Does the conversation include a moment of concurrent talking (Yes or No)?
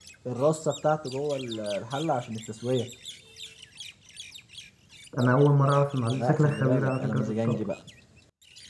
Yes